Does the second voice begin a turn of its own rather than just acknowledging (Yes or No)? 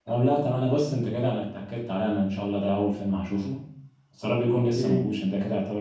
No